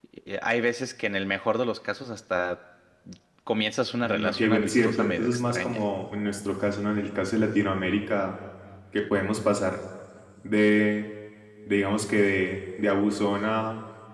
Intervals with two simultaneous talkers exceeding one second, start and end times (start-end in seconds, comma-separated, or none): 4.0-5.8